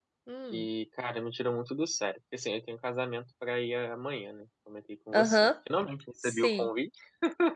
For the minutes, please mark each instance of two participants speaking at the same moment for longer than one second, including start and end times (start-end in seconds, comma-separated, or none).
none